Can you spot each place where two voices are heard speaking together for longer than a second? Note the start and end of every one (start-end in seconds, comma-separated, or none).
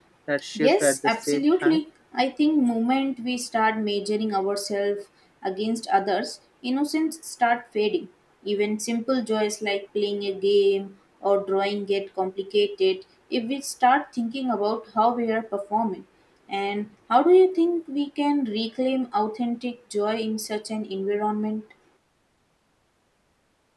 0.6-1.8